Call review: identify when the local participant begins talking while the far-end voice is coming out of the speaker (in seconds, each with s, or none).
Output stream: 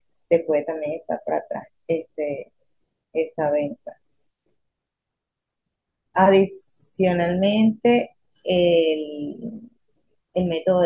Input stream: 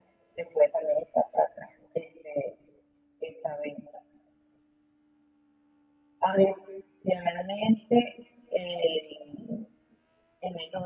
none